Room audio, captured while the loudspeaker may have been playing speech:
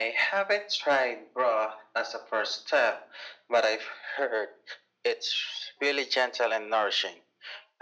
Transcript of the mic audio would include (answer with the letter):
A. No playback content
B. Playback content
B